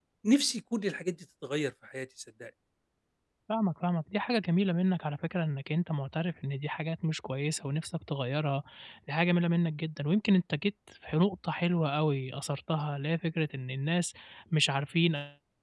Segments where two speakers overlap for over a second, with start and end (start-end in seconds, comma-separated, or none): none